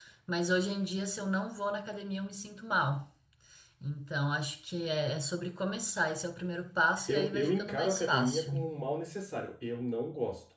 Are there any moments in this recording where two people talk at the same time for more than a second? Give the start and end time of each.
7.1-8.5

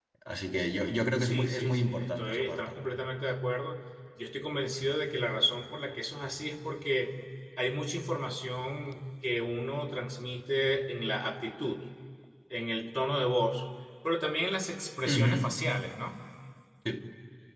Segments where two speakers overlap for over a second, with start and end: 1.2-2.7

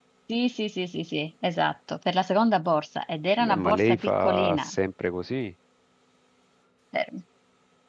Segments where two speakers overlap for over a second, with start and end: 3.4-4.7

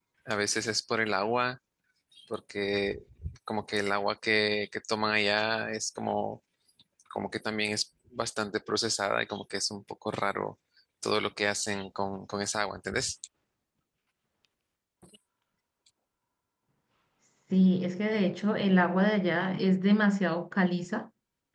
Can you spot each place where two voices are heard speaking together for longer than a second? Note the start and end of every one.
none

